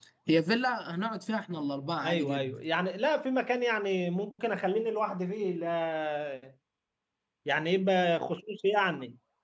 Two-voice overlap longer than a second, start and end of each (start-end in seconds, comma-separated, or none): none